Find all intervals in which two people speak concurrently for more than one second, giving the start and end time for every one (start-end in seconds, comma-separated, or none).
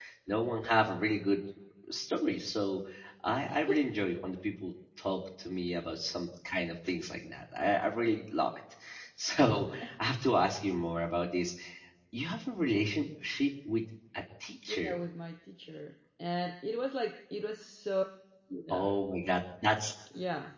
none